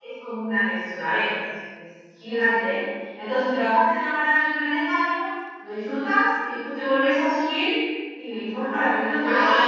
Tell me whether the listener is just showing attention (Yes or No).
No